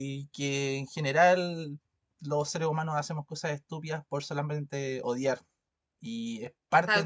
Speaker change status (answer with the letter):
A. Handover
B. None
B